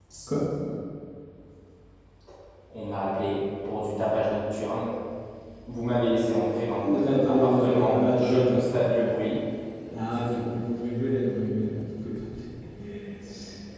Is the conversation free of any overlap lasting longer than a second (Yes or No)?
No